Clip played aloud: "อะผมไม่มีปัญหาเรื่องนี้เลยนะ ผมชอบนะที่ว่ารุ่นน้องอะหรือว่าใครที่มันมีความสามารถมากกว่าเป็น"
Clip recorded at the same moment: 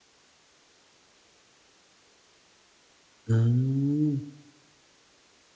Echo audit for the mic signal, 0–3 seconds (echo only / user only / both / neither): neither